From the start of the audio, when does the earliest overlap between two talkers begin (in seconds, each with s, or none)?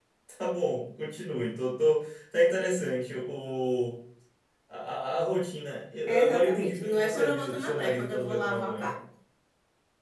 6.1 s